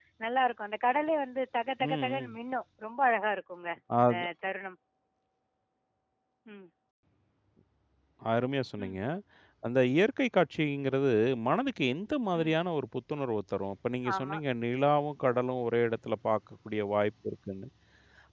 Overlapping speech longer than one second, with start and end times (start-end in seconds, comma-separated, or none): none